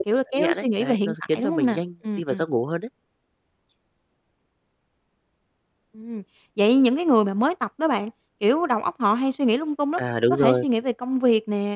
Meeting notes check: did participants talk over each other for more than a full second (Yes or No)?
Yes